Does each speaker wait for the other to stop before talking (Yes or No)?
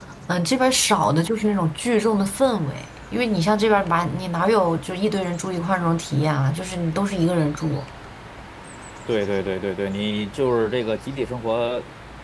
Yes